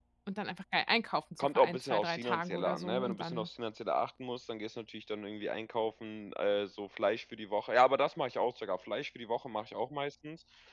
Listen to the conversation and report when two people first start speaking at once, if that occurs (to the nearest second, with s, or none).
1 s